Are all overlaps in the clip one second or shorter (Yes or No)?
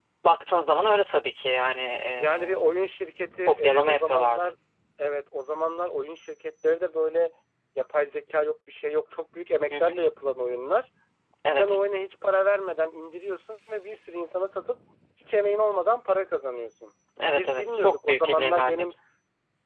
No